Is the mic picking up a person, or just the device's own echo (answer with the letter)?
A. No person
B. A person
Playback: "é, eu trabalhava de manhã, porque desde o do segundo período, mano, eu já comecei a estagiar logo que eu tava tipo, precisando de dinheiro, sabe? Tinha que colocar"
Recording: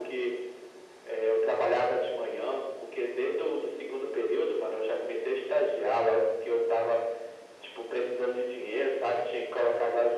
A